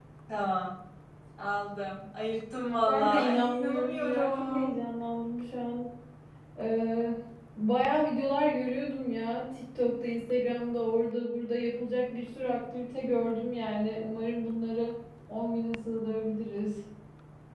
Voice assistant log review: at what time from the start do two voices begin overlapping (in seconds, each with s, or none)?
2.8 s